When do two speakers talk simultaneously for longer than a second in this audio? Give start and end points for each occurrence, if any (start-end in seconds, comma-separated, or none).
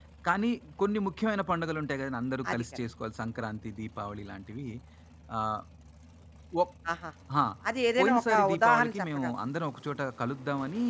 8.0-9.3